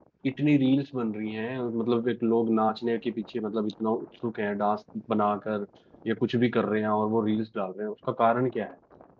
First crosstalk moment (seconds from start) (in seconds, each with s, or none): none